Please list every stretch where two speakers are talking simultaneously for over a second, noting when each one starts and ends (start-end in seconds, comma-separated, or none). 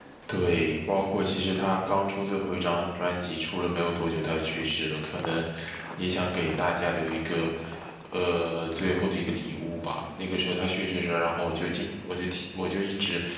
none